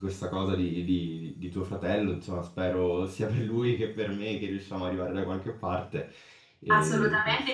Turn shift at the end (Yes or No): Yes